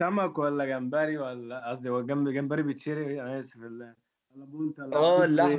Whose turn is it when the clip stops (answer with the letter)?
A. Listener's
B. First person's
A